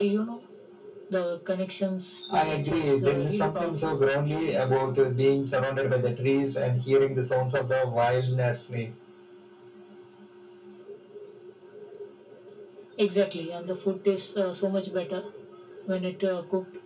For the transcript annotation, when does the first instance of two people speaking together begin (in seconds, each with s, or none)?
2.2 s